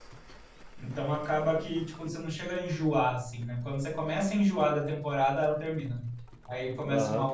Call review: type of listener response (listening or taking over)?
taking over